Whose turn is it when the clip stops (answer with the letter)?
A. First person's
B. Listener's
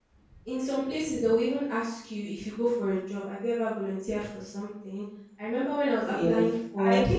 B